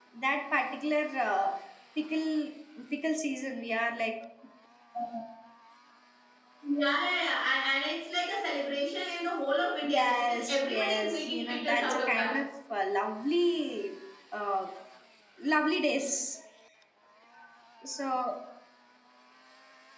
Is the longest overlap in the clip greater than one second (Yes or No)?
Yes